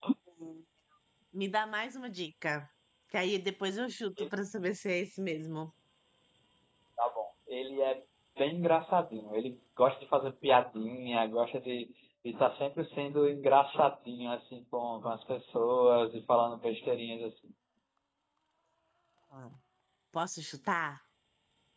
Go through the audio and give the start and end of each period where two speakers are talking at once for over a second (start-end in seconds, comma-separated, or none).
none